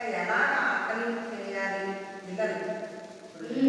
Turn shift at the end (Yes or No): Yes